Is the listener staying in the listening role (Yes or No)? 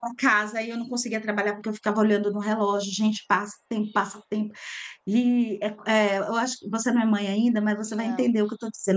Yes